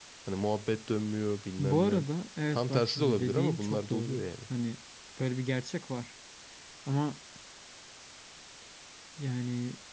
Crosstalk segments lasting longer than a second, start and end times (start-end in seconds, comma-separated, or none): 2.5-4.2